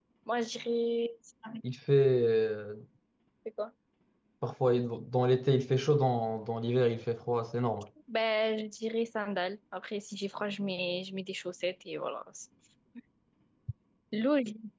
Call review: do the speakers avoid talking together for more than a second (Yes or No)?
Yes